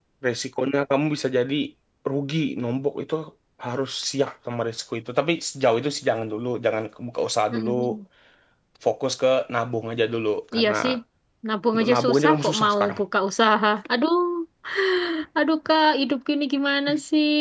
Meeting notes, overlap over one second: present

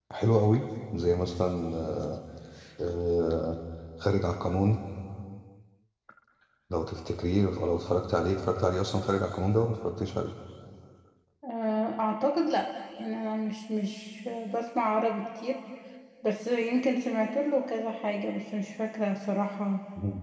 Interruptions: none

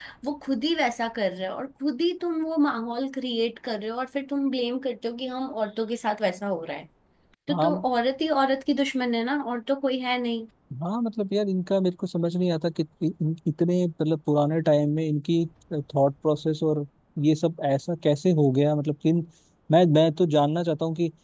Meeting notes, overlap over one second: none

